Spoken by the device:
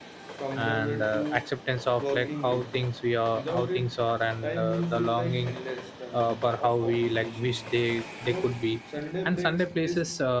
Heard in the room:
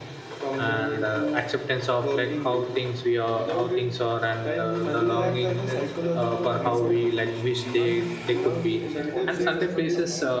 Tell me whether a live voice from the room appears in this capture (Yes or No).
Yes